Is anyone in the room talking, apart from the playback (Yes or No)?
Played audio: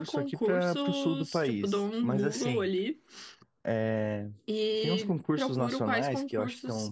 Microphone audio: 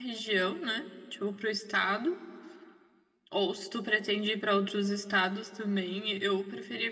Yes